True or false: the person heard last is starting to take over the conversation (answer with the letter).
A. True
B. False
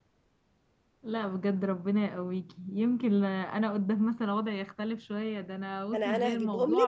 A